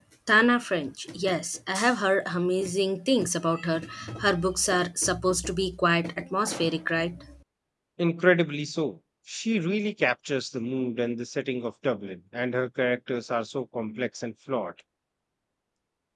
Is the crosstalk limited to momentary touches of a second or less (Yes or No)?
Yes